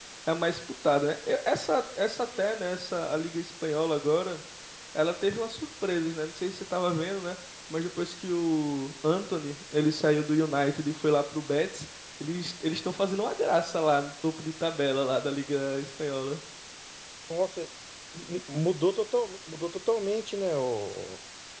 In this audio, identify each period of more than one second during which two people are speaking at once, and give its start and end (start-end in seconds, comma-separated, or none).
none